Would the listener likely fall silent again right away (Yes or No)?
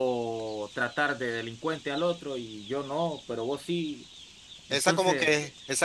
No